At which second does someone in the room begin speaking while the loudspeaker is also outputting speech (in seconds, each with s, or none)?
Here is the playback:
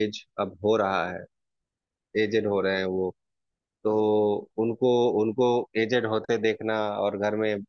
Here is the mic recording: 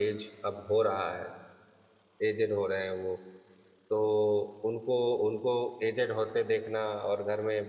none